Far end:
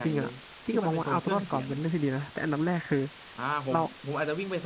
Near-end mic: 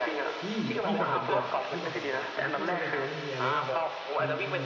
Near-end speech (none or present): present